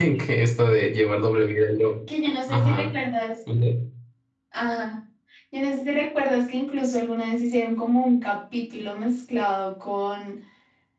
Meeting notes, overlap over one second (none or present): none